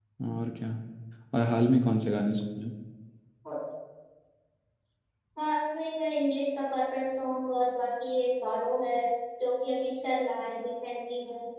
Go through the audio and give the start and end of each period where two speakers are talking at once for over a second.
none

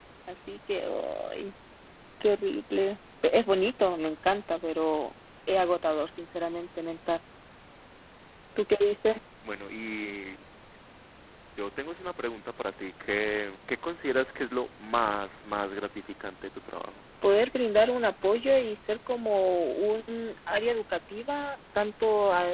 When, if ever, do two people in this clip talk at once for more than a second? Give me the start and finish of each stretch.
none

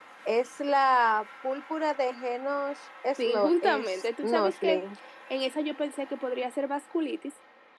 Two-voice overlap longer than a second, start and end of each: 3.2-4.7

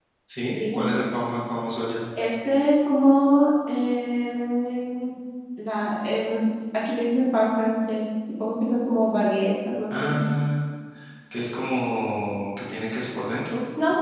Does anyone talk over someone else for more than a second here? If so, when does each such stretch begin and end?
none

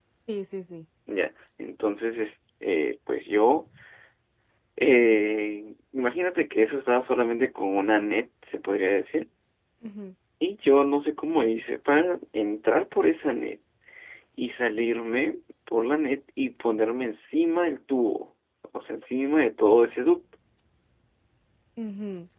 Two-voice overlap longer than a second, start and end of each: none

